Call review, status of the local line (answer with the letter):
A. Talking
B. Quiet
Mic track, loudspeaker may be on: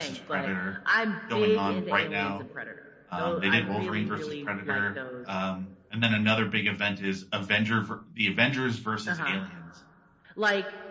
A